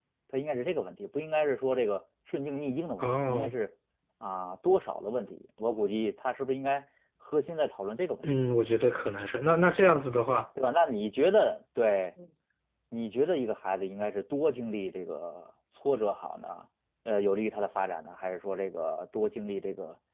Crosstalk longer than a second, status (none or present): none